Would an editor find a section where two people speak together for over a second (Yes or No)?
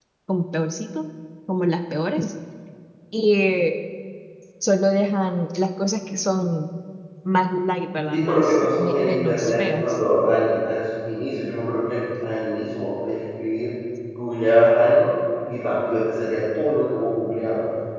Yes